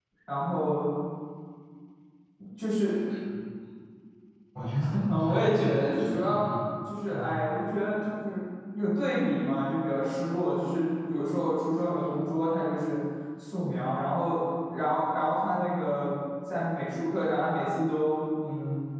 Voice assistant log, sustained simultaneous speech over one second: present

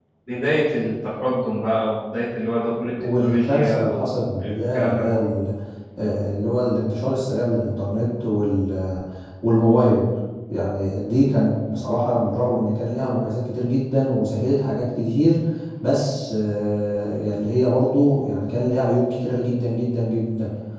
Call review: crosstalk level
present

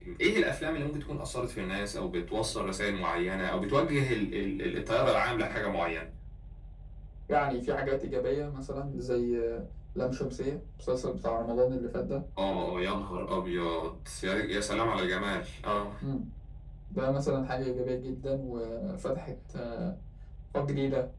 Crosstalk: none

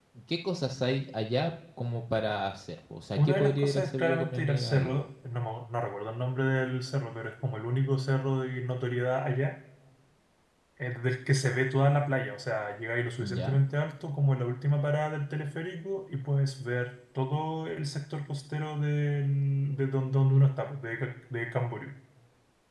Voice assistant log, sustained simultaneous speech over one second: present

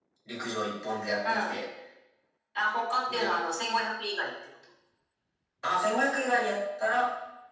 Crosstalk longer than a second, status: none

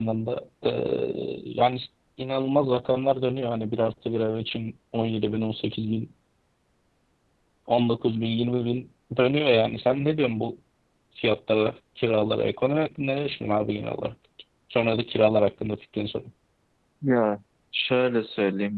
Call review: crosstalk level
none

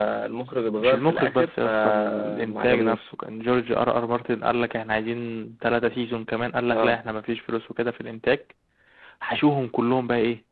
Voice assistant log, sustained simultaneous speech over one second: present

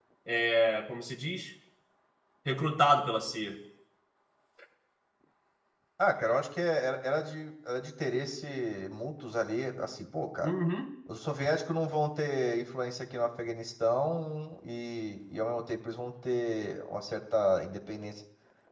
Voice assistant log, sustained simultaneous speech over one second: none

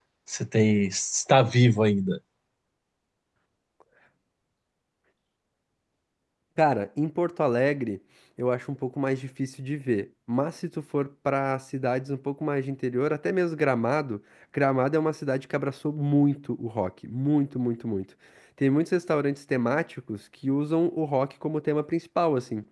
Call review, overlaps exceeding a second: none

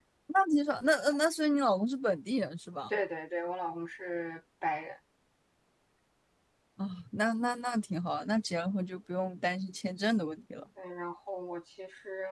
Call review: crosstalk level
none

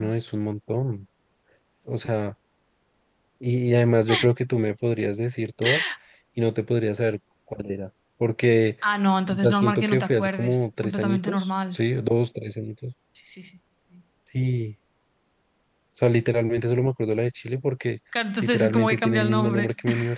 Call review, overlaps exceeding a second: present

